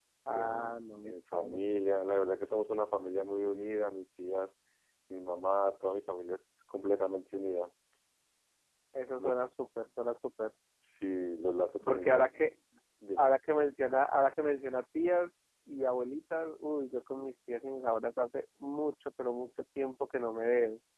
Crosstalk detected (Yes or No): Yes